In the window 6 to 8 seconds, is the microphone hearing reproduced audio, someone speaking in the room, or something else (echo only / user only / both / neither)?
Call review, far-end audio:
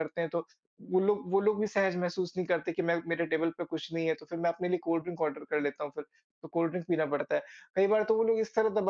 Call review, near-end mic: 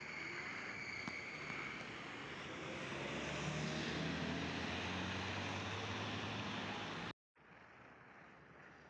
neither